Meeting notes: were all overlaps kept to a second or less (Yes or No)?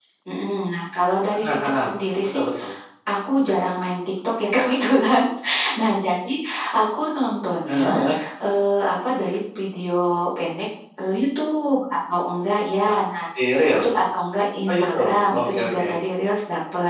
No